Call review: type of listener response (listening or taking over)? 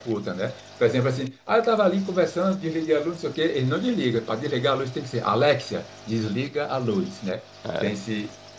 listening